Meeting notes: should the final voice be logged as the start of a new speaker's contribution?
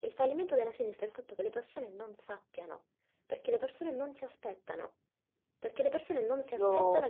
No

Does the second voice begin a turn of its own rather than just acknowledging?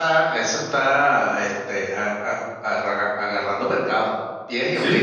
Yes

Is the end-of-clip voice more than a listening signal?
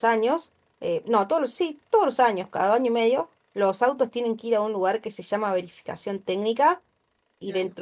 No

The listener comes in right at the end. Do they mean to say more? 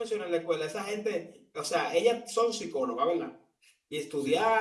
No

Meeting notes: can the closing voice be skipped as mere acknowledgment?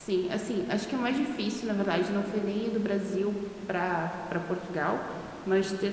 Yes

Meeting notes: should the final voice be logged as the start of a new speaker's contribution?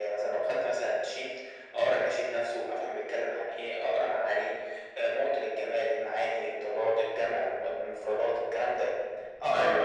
No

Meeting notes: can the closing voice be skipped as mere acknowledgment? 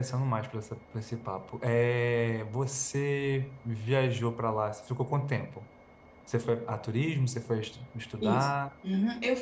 No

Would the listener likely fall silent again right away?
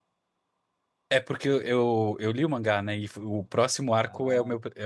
Yes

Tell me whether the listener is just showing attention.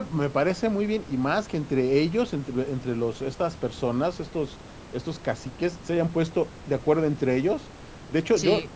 Yes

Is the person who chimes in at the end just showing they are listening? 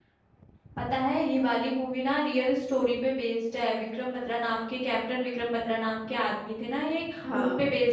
Yes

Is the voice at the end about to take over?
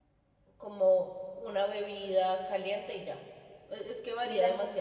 No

